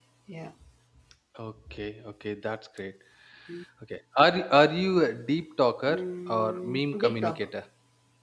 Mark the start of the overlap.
5.9 s

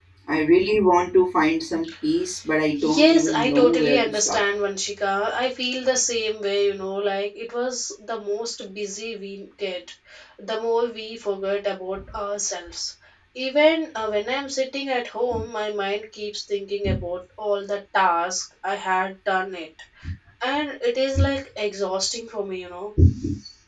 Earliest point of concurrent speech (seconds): 2.8 s

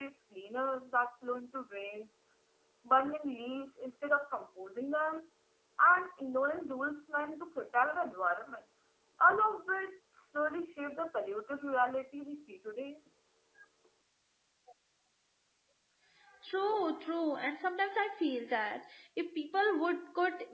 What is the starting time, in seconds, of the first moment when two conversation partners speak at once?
none

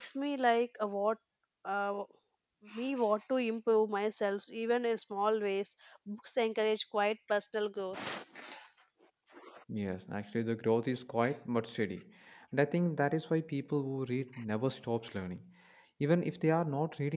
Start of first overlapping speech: none

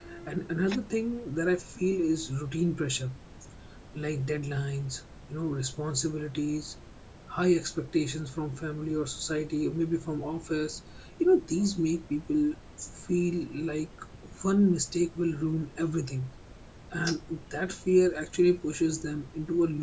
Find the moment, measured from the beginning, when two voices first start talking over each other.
none

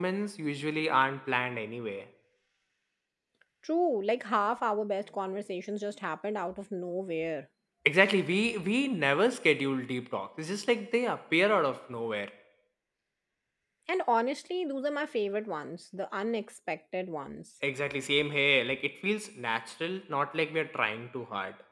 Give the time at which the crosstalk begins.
none

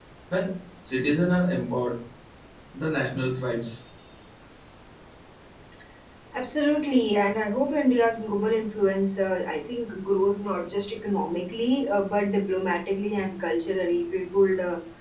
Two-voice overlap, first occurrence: none

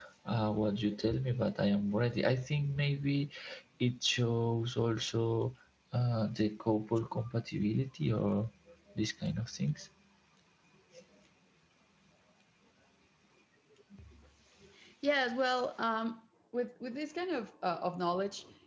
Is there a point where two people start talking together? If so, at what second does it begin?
none

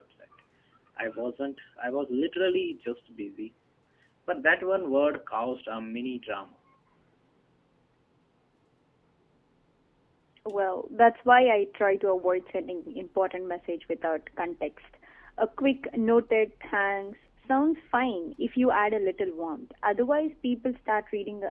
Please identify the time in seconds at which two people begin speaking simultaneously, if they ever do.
none

